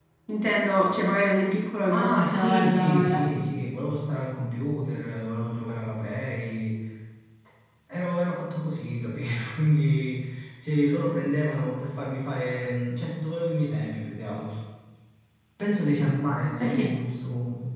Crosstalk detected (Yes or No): Yes